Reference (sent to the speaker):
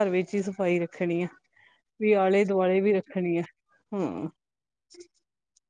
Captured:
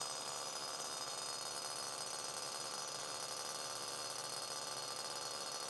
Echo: none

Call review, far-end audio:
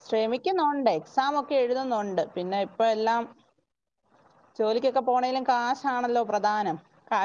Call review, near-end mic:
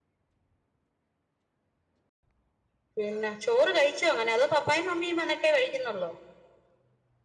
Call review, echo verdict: none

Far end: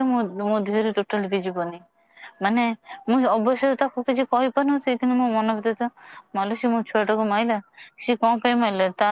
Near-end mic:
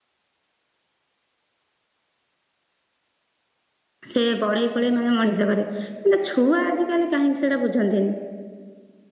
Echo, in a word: none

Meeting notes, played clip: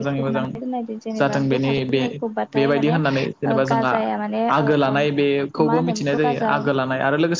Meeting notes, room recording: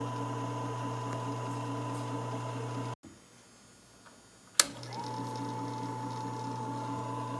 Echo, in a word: none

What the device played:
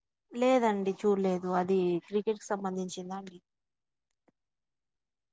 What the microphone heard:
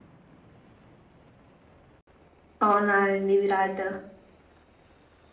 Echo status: none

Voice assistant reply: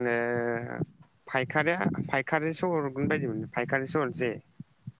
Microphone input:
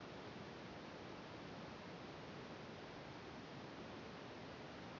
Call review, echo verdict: none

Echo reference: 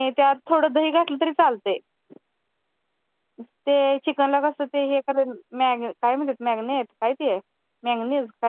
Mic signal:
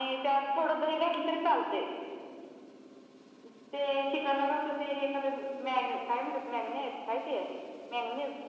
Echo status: present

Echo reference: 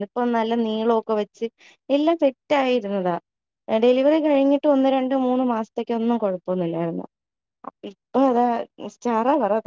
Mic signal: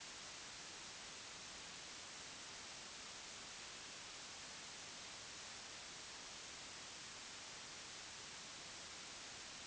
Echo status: none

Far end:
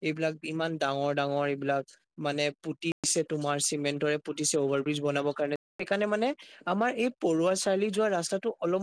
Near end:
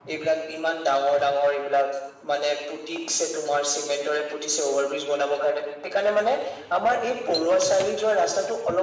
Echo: present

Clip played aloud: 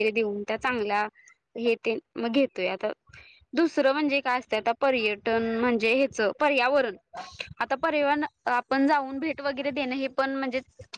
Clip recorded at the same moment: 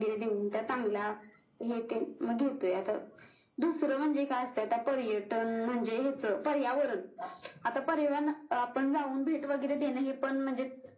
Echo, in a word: present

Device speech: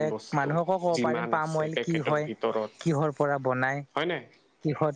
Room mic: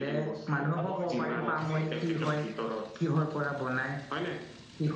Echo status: present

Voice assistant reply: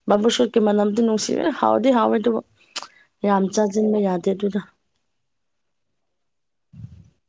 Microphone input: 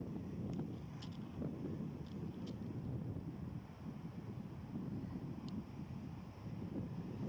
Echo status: none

